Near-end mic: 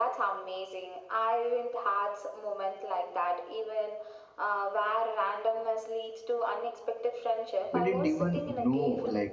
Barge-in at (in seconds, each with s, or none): 7.7 s